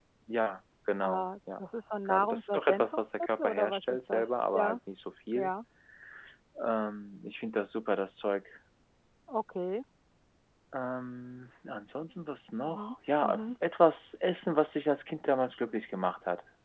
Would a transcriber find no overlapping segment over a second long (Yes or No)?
No